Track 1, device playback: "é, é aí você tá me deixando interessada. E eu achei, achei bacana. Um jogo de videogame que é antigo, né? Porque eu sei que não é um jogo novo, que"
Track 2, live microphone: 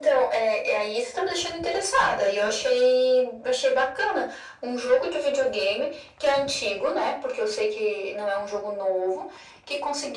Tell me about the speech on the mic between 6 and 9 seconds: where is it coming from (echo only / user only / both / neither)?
echo only